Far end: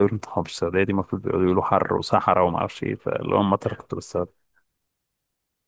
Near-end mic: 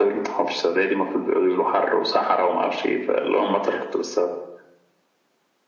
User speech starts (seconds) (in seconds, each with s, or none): none